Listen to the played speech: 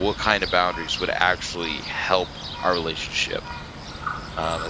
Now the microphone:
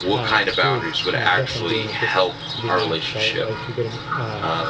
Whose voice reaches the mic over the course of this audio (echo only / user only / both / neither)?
both